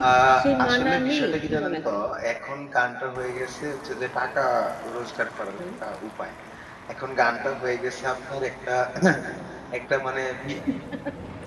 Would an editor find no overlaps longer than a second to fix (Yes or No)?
No